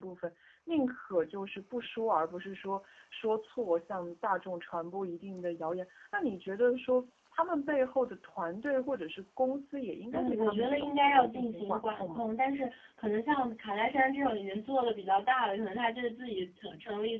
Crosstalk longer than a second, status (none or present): present